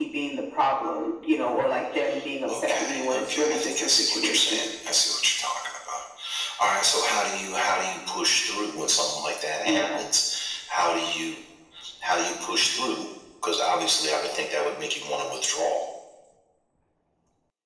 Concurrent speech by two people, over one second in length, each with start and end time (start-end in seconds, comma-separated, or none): 2.5-4.7